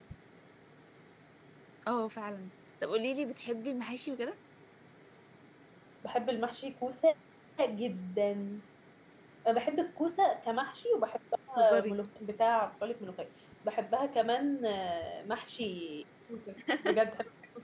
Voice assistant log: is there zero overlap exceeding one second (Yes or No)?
Yes